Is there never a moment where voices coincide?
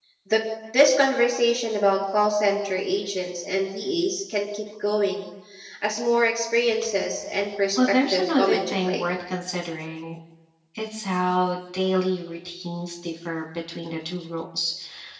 No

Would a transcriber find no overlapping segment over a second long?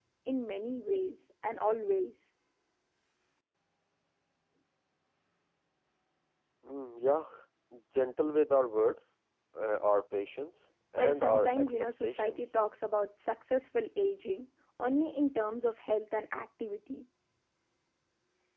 No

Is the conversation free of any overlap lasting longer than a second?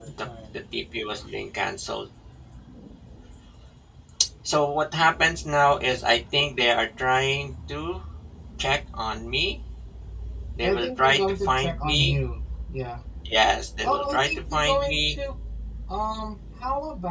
No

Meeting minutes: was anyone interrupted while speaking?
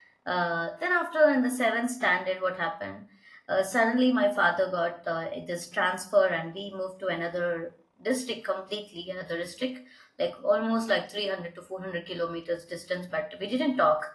No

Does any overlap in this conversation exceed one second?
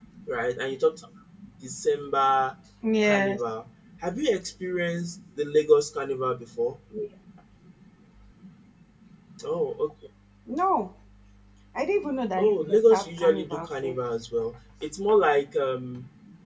Yes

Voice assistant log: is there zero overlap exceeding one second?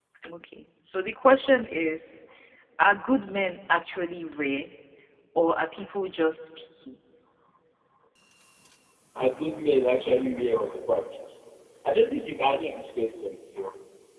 Yes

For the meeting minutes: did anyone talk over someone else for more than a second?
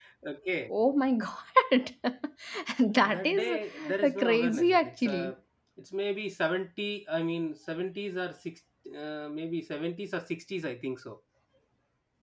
Yes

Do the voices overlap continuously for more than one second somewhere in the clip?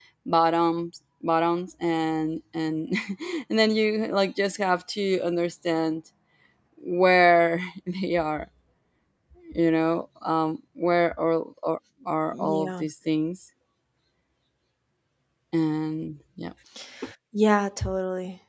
No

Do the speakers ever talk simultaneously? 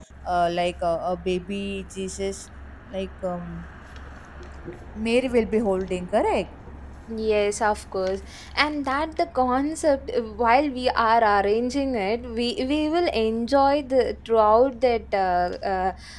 No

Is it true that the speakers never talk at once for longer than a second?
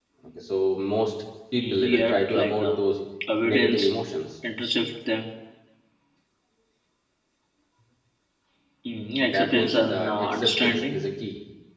No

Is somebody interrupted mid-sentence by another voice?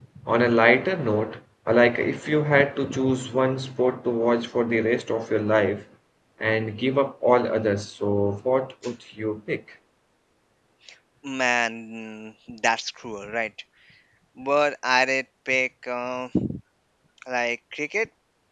No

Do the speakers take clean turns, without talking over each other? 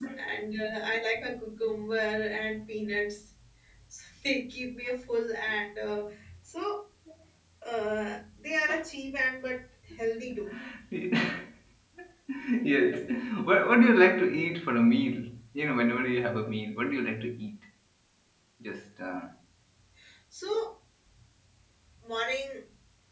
Yes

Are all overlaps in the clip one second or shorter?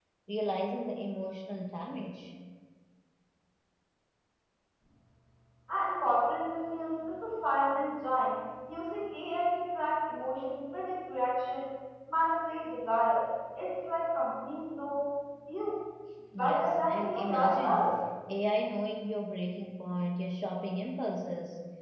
No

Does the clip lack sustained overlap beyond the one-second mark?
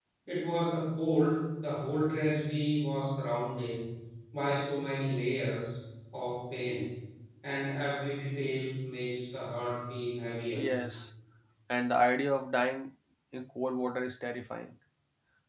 Yes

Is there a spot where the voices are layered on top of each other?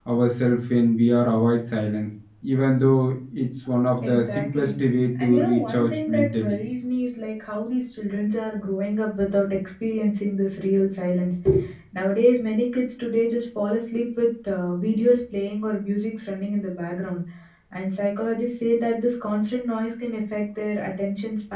Yes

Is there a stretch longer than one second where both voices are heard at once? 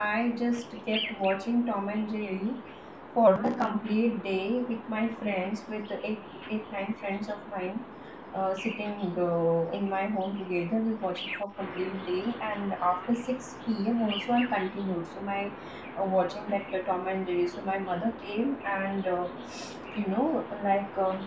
No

